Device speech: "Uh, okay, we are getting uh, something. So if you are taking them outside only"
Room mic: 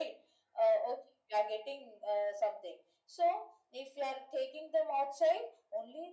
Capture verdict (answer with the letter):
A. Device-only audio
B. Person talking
A